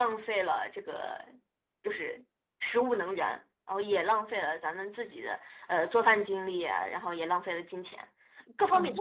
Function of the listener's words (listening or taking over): taking over